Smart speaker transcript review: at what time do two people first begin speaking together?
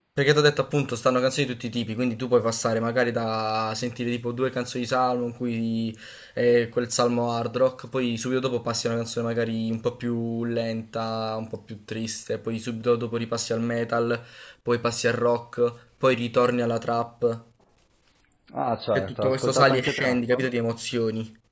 18.9 s

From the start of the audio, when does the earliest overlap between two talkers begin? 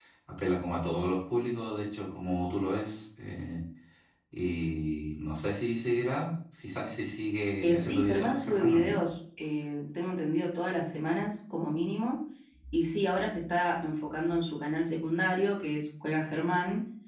7.6 s

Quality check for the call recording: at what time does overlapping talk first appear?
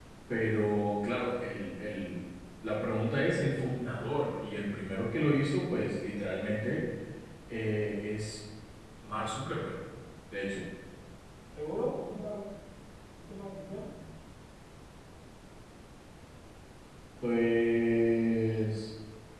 none

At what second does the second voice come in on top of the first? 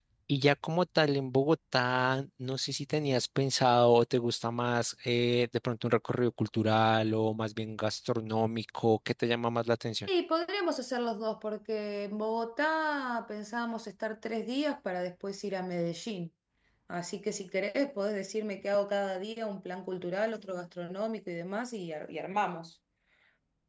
none

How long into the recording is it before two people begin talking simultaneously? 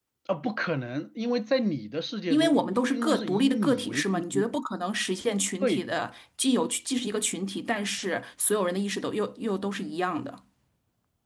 2.3 s

